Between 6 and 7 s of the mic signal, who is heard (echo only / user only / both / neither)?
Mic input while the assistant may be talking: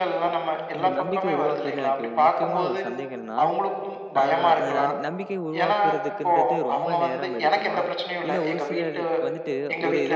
both